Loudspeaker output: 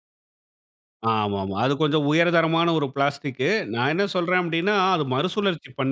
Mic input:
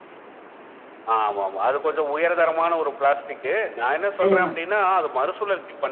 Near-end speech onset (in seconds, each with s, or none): 4.2 s